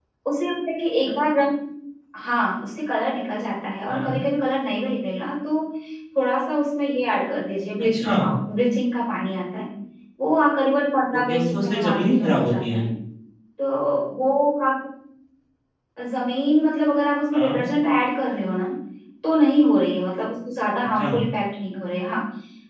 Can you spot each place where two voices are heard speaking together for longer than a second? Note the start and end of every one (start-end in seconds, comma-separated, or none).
11.2-12.8